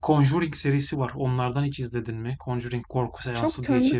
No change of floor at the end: No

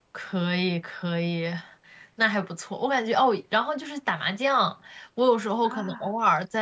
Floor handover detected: No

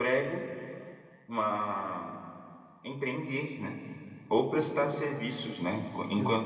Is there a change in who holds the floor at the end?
No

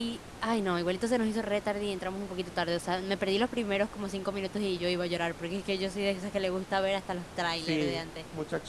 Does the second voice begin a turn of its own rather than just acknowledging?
Yes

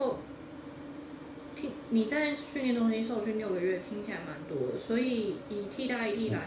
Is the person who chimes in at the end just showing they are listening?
Yes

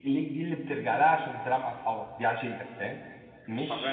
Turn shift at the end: Yes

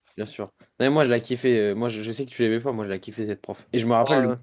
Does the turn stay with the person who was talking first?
Yes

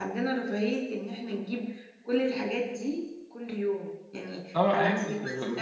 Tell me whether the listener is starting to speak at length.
Yes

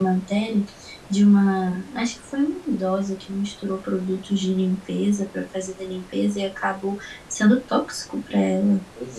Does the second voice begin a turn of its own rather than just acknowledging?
No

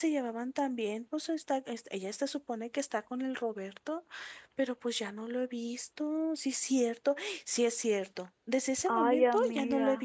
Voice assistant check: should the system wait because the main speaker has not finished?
Yes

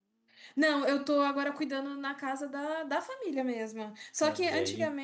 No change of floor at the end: Yes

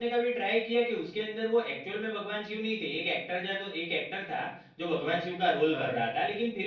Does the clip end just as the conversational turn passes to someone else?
No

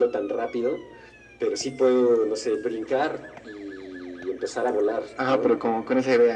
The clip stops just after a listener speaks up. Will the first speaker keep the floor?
No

